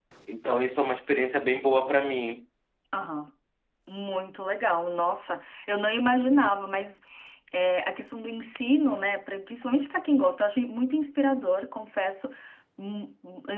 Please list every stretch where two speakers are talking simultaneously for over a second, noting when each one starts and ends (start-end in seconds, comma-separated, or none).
none